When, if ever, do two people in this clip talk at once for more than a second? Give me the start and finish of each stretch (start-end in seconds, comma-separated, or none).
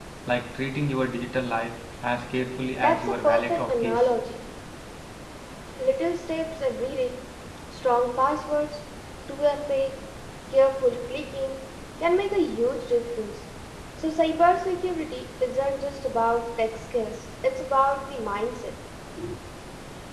2.8-4.1